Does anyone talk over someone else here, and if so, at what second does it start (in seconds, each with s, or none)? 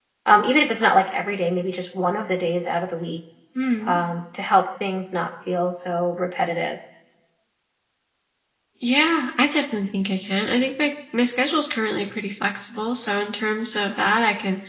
none